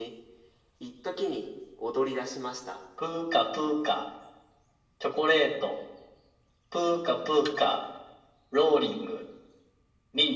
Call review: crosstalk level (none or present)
none